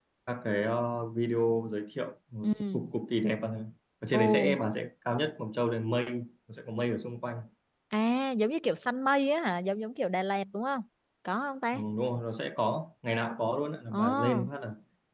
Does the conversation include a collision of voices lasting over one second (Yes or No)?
No